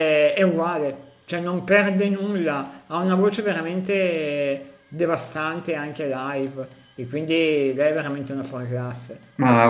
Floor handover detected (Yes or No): Yes